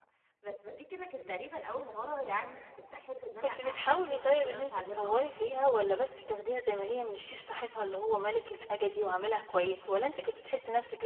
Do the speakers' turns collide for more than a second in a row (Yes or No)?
Yes